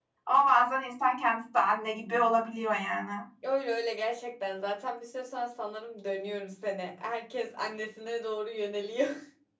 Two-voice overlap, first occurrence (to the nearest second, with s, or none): none